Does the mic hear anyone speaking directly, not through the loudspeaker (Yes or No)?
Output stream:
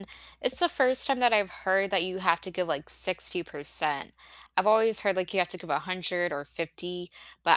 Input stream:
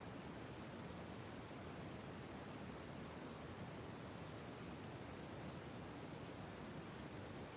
No